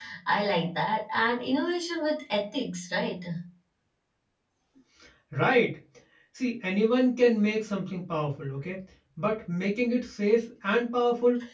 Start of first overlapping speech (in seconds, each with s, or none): none